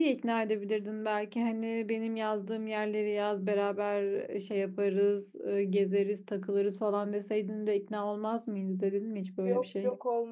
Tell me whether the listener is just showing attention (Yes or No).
No